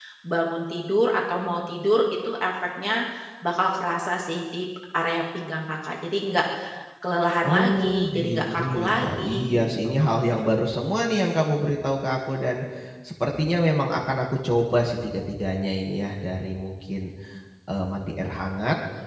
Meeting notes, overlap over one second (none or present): present